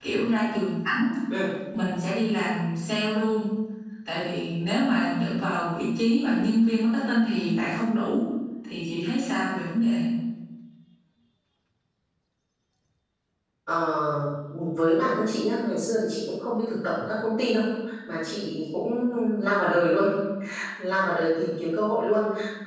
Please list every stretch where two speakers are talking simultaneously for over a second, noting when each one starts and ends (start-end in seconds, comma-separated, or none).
none